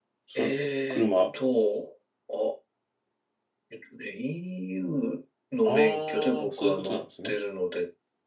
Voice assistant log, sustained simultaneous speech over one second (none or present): present